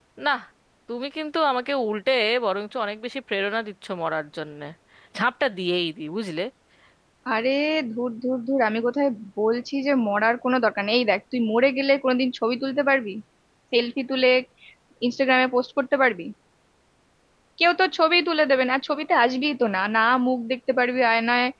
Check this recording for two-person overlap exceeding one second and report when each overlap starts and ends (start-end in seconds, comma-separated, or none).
none